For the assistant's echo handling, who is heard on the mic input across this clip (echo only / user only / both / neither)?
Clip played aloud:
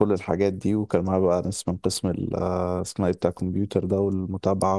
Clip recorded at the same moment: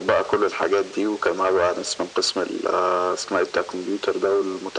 echo only